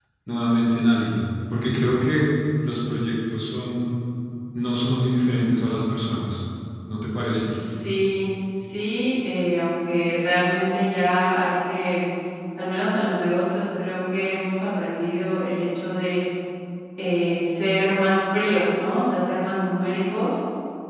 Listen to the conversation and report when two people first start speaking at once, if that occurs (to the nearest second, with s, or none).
none